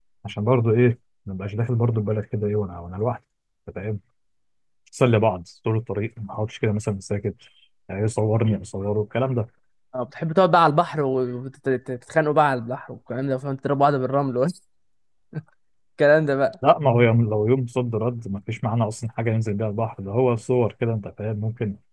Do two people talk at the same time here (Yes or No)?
No